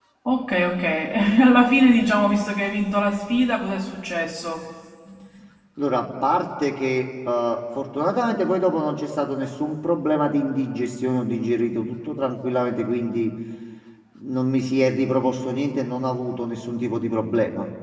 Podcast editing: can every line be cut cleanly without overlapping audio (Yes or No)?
Yes